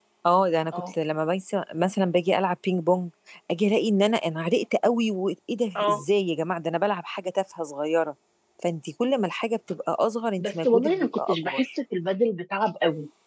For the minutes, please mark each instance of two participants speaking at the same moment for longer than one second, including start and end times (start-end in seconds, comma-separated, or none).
10.4-11.7